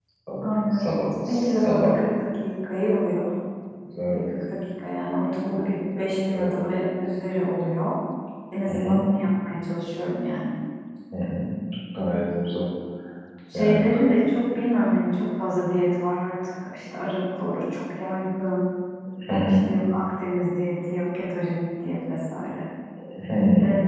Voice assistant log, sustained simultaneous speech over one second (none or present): present